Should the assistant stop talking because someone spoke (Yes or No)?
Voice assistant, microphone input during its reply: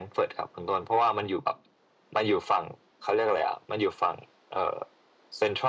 No